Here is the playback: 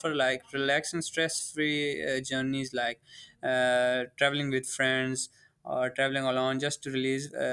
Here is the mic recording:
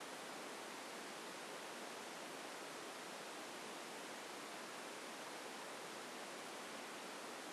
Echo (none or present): none